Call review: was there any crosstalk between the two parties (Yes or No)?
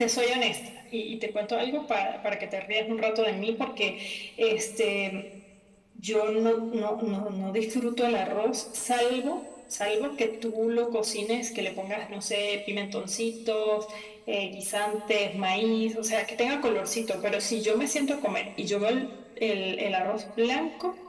No